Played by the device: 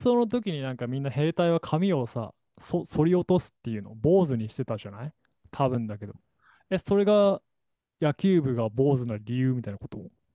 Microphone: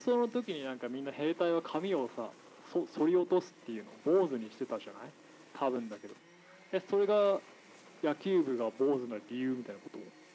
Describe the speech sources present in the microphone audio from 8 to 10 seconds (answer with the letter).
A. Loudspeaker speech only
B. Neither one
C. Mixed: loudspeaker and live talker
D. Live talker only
A